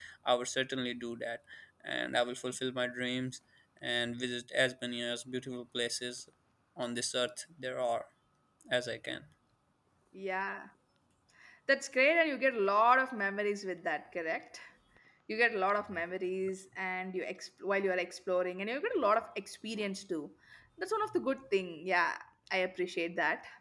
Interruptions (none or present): none